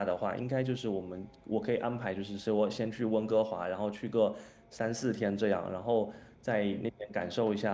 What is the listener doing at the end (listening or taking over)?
listening